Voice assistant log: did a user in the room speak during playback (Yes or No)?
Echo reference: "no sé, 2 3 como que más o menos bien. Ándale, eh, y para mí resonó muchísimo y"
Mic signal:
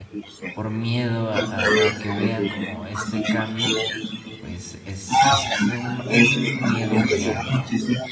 Yes